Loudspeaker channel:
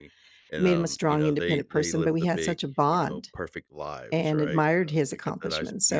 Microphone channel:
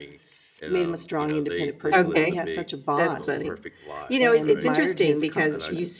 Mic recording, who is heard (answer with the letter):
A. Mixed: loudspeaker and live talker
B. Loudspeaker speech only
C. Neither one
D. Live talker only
A